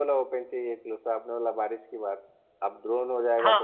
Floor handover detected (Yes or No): Yes